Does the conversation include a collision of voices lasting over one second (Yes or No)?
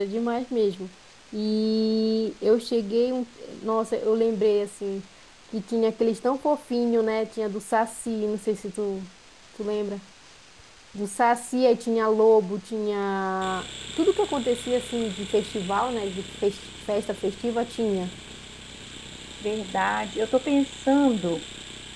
No